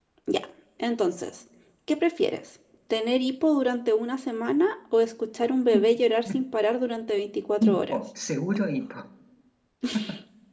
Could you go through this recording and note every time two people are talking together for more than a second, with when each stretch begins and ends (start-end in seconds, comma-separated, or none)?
none